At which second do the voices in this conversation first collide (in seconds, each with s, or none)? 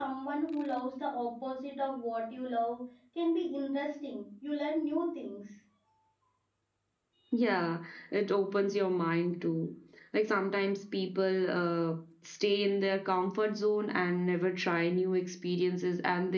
none